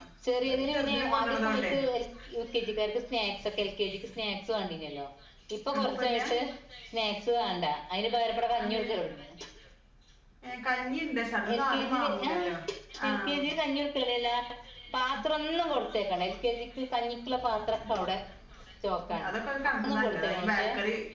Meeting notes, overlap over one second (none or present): present